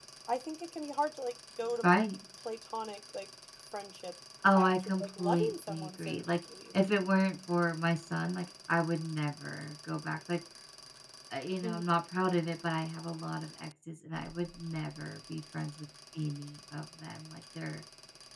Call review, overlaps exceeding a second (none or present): present